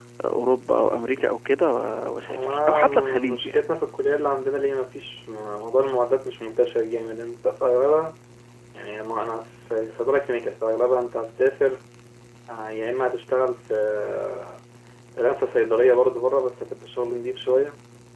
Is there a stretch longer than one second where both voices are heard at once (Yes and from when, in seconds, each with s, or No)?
Yes, from 2.3 s